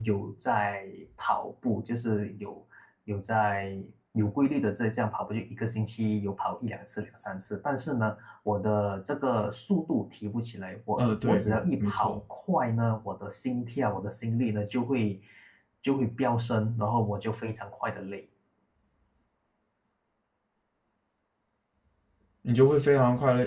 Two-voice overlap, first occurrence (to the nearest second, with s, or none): 11 s